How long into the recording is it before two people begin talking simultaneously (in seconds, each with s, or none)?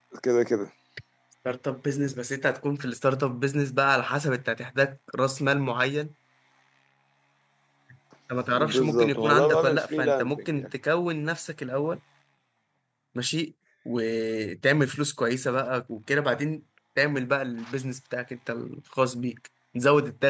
8.7 s